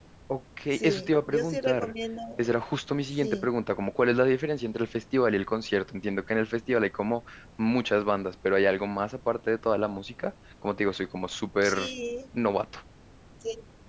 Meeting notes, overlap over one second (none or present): present